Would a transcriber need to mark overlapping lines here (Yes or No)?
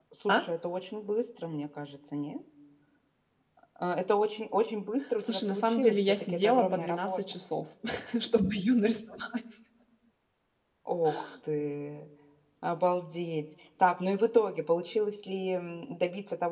Yes